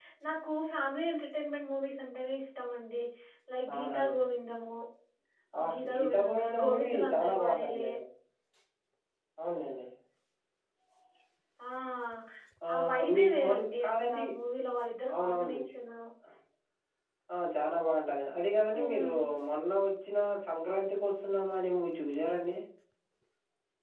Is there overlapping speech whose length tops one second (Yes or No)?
Yes